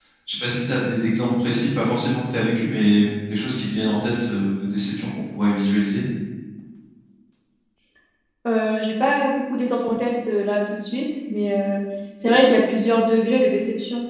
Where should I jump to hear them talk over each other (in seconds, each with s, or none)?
none